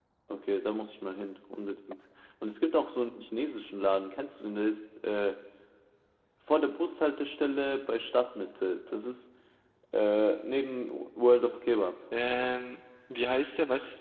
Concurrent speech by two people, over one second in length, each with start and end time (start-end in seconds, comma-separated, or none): none